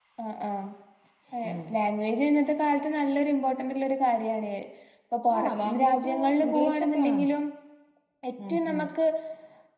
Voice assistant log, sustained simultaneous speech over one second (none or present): present